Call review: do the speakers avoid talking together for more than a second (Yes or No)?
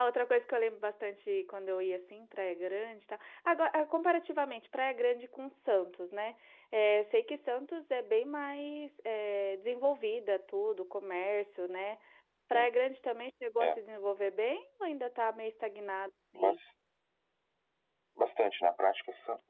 Yes